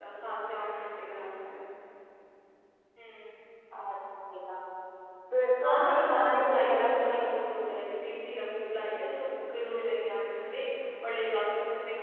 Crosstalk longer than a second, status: present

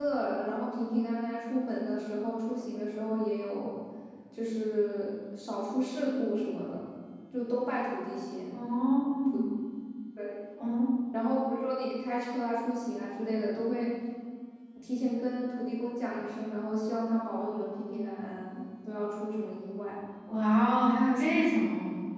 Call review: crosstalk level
none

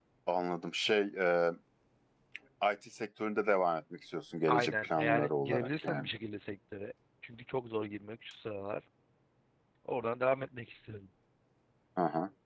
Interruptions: present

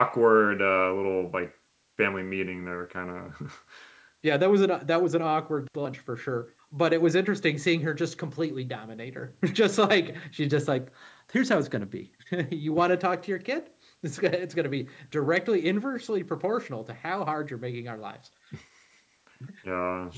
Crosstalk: none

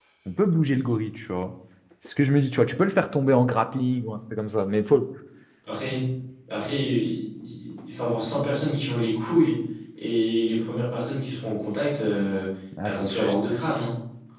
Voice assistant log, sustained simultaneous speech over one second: none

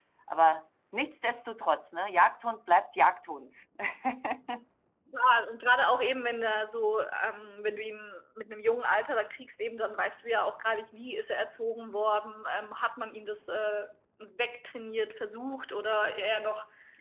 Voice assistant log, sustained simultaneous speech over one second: none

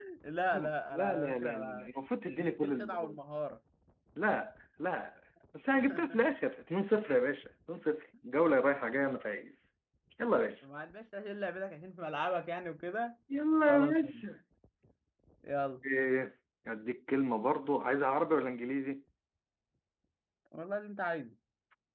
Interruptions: present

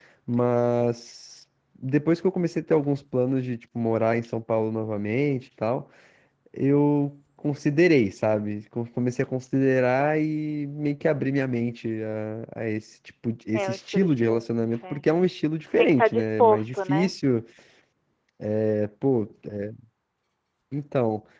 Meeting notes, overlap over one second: present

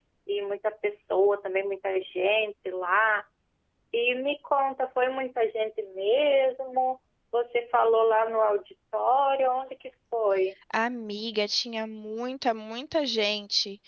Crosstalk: none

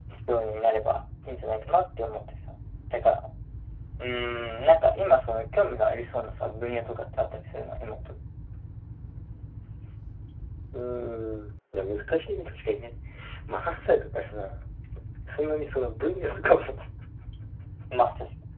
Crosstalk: none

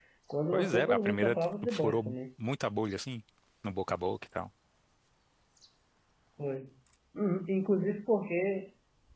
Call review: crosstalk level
present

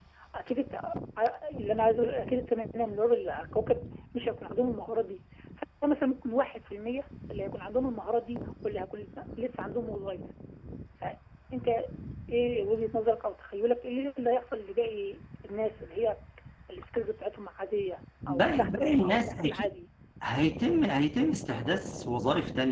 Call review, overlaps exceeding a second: present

